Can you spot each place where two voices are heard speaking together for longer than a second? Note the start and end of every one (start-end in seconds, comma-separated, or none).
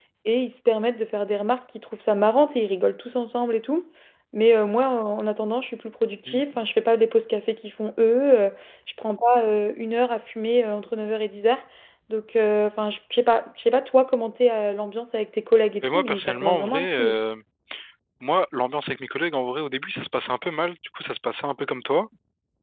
15.8-17.2